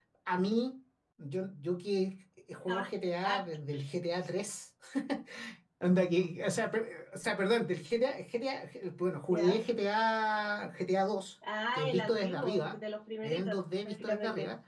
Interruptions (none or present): present